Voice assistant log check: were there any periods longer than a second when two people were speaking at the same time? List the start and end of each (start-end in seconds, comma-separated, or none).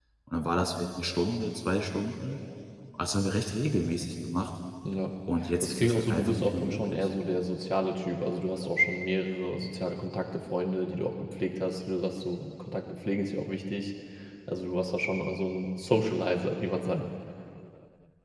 5.6-7.1